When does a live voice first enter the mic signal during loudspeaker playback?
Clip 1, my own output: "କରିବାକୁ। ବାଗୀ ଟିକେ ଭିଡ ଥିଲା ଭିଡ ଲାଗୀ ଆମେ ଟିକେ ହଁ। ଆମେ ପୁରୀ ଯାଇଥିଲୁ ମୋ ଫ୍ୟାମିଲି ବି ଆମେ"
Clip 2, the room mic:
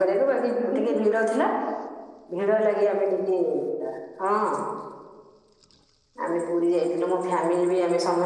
0 s

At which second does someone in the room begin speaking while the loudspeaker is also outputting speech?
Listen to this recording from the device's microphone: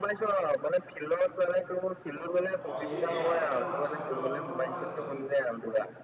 2 s

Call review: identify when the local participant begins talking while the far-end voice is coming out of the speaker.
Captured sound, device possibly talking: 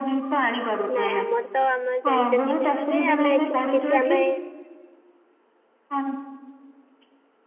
1 s

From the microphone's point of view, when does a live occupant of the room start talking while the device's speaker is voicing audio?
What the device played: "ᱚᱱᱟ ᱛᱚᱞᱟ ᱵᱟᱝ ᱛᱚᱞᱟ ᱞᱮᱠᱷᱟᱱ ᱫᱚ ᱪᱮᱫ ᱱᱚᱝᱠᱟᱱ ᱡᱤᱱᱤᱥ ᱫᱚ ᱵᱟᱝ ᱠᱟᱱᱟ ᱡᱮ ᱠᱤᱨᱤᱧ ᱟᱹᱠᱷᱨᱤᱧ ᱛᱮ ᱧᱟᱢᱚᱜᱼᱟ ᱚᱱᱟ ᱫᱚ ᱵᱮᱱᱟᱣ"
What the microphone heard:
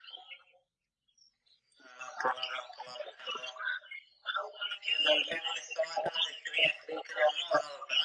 none

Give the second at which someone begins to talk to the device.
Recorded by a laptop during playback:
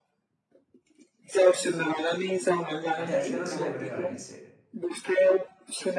3 s

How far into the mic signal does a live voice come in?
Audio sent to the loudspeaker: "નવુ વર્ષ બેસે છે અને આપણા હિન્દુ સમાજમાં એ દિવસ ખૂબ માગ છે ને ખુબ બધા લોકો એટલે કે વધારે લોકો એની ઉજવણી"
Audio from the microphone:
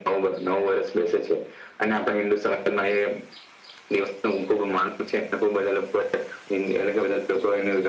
none

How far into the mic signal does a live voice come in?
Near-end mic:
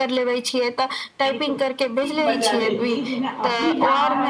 2 s

